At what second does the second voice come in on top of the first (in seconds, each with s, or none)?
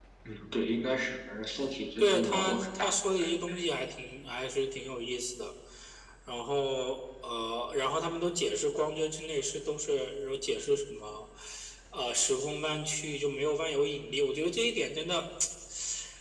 2.0 s